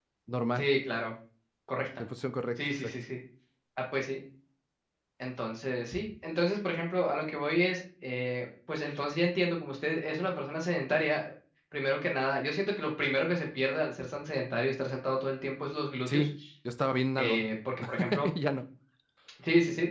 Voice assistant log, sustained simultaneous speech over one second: none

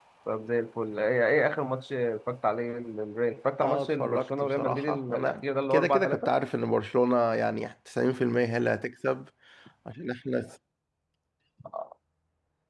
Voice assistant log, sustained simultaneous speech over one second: present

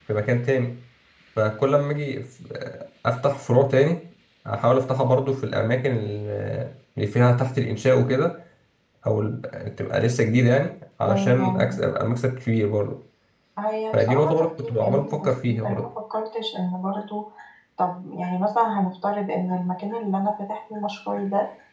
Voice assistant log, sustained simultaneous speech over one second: present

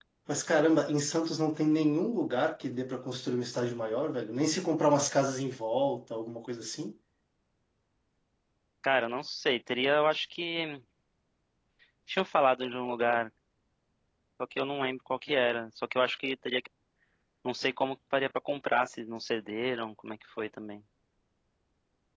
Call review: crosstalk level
none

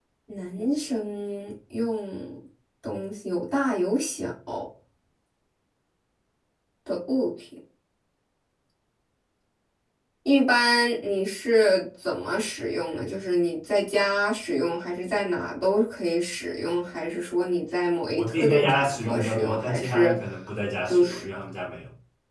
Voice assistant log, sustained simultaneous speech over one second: present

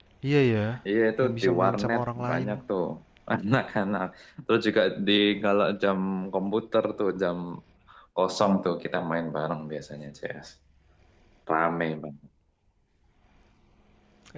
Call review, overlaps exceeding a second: present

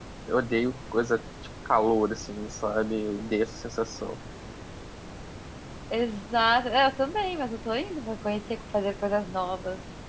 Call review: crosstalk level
none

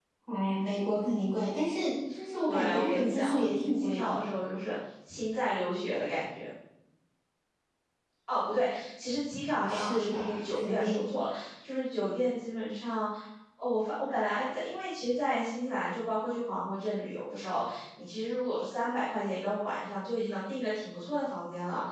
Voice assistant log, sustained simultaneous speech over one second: present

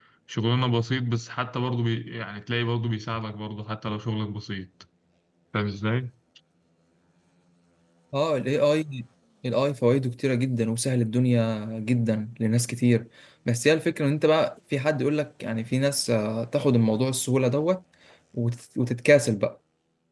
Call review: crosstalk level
none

